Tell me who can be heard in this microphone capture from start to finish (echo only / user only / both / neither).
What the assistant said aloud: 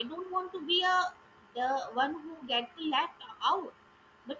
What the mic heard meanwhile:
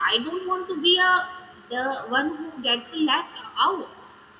echo only